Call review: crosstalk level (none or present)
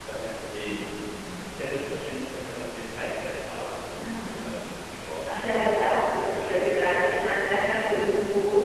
present